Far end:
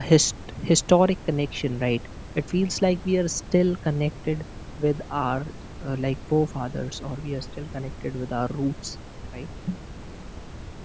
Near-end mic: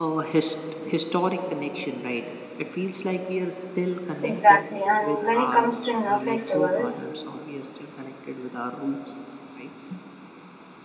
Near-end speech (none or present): present